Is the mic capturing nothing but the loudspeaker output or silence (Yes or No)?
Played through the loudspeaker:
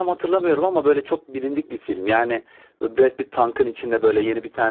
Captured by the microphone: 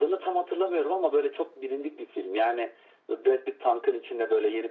Yes